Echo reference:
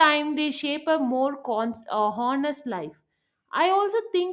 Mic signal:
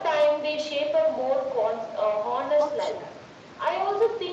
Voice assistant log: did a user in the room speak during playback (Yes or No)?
Yes